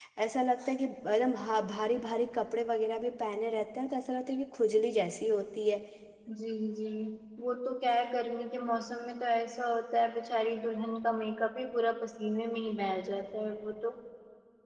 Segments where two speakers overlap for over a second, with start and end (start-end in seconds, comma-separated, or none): none